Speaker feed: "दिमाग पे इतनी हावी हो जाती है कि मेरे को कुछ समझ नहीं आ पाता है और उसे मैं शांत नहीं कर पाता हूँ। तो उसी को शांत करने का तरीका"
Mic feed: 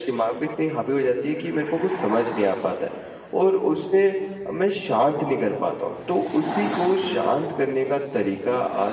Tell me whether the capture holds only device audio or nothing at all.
Yes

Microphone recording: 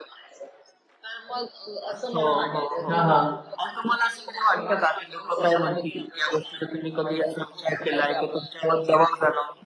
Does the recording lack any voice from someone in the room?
No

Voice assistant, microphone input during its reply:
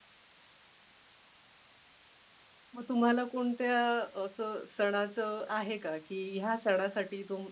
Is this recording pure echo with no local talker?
No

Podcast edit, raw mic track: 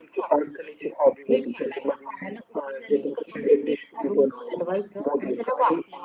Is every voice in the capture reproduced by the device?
Yes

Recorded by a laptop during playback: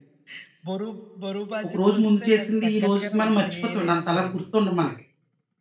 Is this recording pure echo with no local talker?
No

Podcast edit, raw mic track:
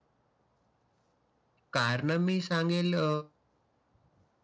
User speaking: Yes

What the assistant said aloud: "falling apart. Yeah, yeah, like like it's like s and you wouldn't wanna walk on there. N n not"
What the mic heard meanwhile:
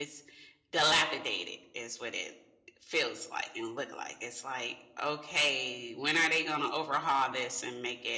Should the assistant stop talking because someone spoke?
Yes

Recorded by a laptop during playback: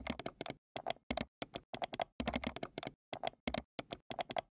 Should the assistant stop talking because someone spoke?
No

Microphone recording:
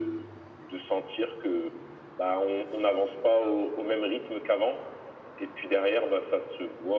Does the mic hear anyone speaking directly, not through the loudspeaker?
No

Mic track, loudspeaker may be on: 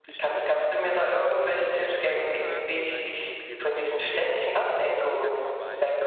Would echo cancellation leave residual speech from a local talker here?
Yes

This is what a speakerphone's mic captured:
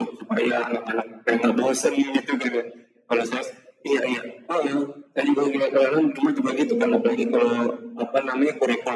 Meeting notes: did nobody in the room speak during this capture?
No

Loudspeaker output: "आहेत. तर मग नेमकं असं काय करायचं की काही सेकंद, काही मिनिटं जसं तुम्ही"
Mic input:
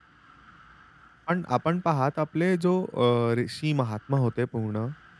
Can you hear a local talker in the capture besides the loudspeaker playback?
Yes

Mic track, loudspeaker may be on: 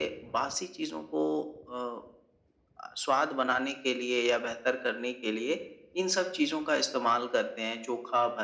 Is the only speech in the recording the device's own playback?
Yes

